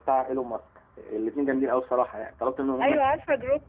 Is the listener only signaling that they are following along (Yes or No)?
No